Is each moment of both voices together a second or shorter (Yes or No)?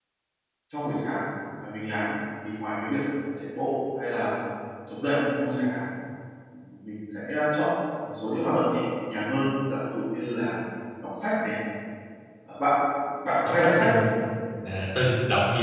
Yes